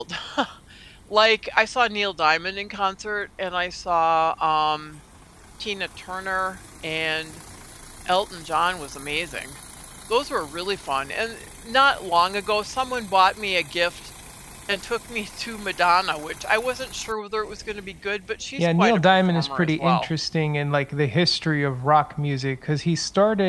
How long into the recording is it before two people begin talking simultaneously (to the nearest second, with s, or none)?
19 s